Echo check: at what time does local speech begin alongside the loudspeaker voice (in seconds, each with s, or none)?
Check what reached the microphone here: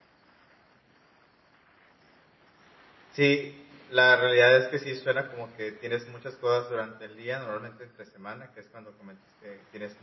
3.1 s